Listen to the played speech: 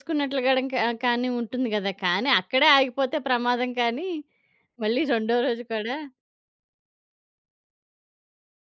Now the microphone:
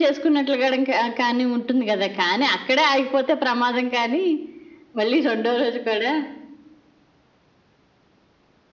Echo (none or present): present